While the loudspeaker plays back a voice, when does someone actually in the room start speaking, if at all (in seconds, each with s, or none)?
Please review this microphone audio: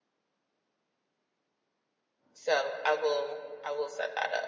2.3 s